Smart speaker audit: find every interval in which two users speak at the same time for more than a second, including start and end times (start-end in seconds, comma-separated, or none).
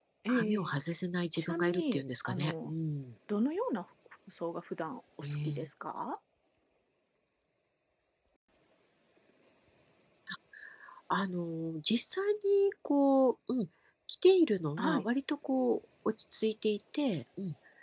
1.4-2.7